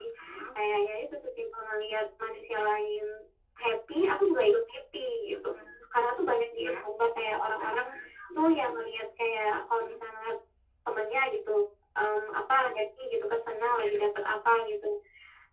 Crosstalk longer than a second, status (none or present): none